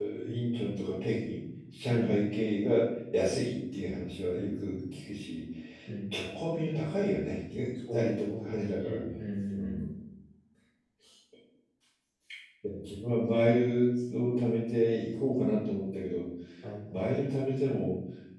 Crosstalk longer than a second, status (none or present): present